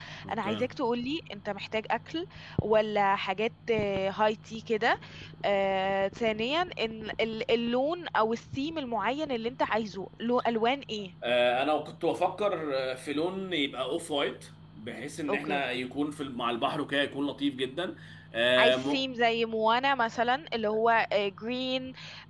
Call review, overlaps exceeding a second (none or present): none